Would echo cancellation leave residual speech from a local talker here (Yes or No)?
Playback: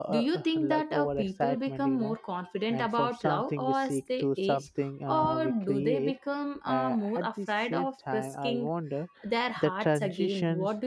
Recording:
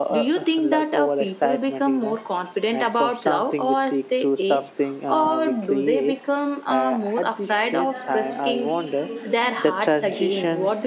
Yes